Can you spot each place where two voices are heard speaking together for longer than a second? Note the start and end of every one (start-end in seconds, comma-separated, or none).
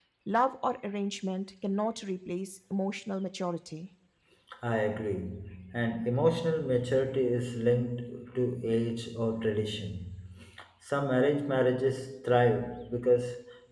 none